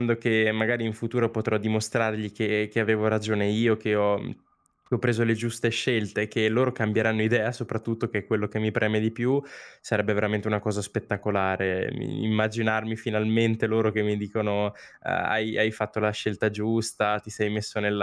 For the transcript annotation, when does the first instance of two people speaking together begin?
none

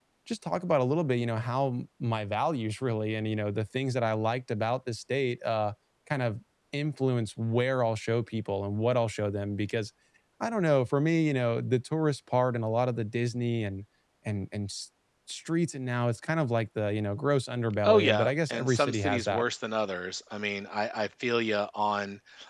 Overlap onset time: 17.8 s

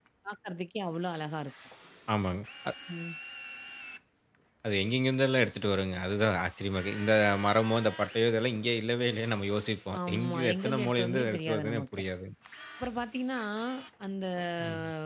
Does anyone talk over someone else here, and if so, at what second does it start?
10.1 s

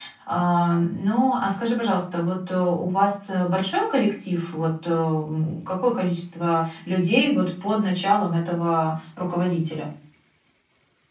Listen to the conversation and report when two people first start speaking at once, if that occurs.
none

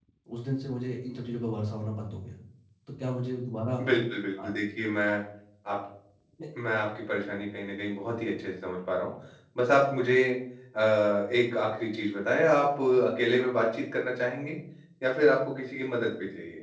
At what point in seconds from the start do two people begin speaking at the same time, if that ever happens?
none

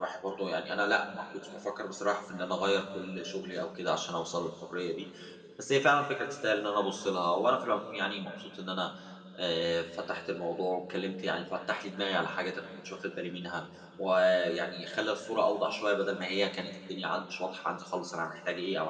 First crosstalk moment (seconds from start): none

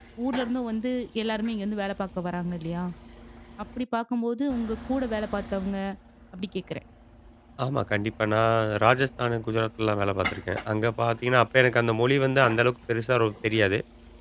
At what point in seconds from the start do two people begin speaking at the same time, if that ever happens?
none

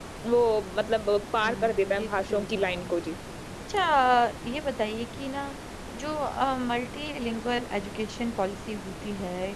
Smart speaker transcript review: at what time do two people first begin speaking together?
1.4 s

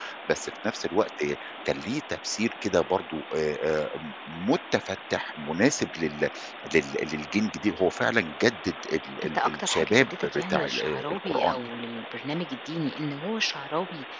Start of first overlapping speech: 9.2 s

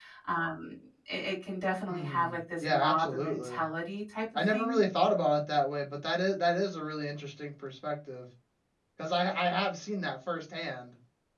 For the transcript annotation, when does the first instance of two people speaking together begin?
1.9 s

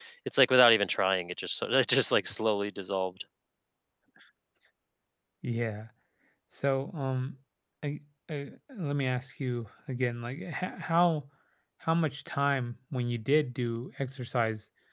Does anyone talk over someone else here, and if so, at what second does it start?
none

